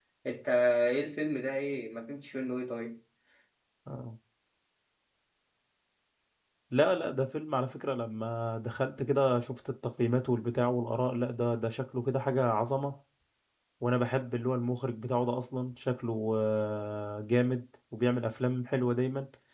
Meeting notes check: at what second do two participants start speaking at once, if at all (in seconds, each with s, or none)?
none